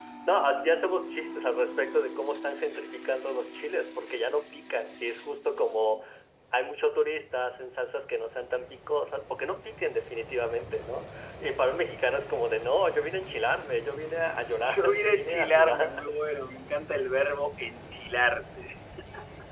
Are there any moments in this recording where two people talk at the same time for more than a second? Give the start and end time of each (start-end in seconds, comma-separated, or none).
14.7-16.1